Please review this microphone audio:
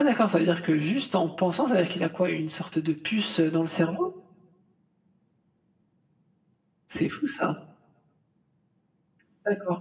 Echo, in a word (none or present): none